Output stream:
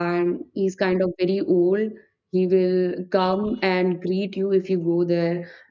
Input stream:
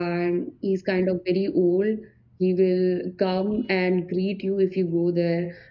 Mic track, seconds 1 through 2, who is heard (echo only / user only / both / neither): echo only